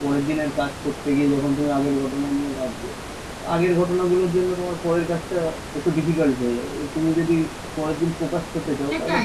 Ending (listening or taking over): taking over